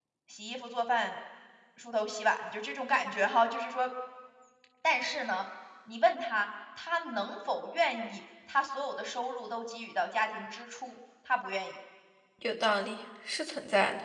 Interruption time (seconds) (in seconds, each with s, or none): none